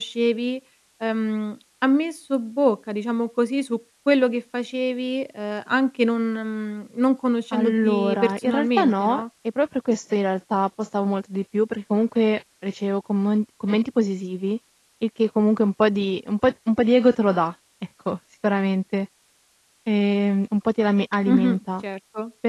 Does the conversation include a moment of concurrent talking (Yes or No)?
Yes